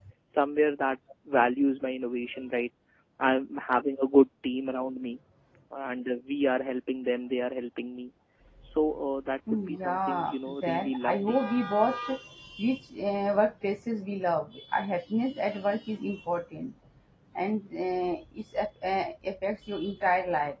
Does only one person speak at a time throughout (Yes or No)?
No